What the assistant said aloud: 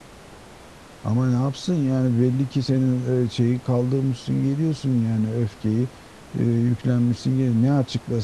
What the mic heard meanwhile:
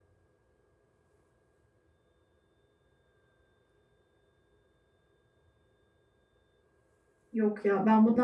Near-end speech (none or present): present